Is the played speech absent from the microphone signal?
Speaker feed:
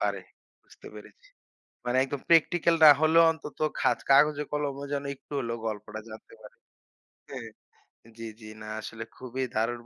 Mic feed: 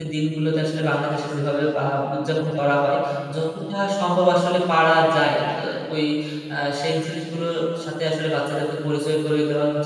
Yes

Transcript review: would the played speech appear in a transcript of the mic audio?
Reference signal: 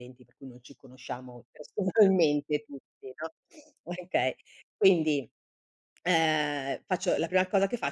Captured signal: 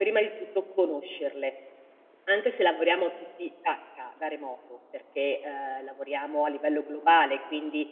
No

